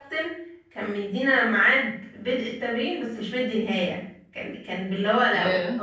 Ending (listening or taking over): listening